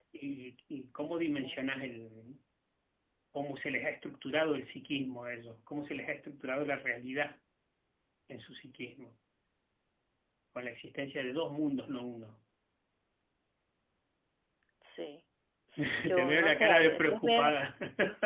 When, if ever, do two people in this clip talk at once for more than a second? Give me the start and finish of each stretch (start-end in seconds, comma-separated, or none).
16.1-17.4